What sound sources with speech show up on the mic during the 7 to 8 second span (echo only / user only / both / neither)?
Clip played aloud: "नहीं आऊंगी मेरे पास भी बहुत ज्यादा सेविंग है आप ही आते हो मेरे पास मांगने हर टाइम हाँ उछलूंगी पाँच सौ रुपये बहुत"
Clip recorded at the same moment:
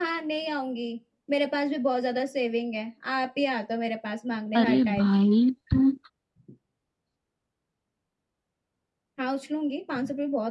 neither